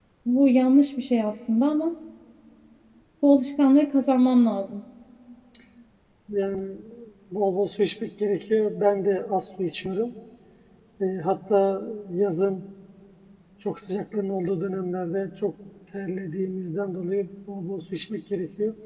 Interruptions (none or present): none